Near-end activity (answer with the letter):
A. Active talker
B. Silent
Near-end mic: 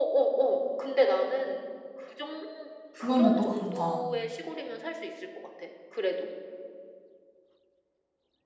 A